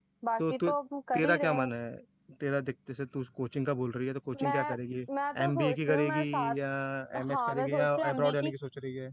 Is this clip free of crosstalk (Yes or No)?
No